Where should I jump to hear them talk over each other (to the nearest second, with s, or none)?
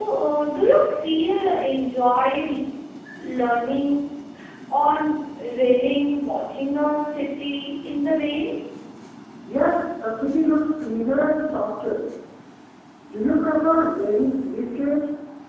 none